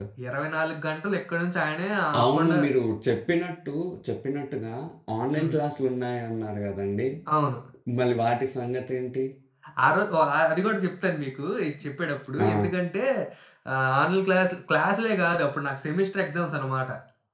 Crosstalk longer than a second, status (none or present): none